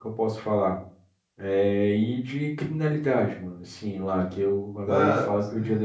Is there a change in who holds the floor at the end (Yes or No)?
No